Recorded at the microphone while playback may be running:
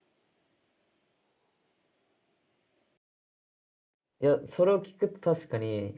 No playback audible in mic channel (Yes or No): Yes